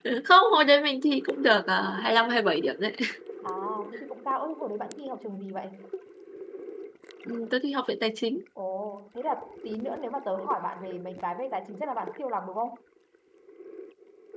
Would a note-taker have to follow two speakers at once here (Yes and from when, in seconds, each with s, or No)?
No